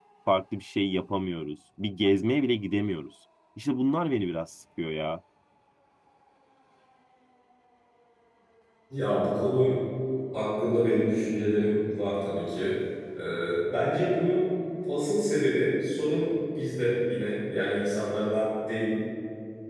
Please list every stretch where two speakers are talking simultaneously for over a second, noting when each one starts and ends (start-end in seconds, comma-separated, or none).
none